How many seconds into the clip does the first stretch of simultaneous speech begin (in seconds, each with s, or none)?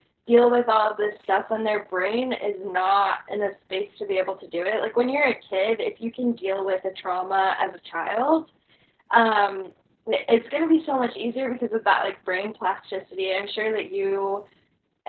none